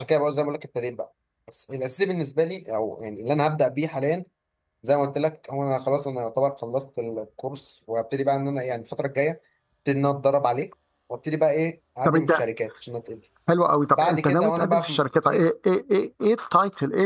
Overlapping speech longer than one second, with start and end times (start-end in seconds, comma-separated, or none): 14.0-15.4